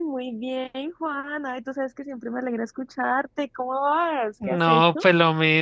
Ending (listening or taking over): taking over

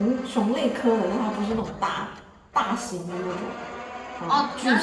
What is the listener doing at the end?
taking over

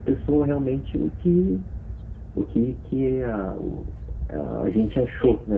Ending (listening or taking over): taking over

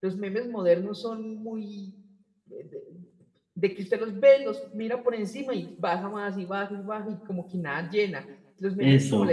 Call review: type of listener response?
listening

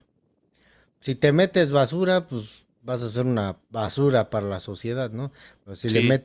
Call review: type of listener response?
listening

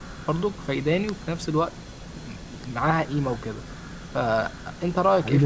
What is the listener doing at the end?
taking over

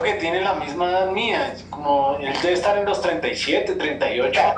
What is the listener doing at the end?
taking over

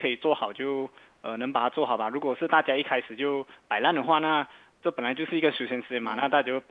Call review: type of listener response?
listening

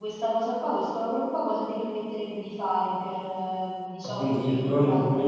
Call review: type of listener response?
taking over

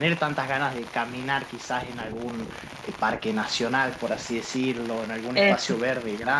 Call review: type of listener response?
listening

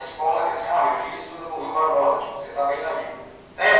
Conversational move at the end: taking over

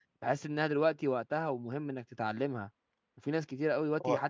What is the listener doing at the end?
listening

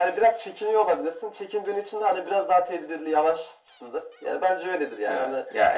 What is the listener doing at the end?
taking over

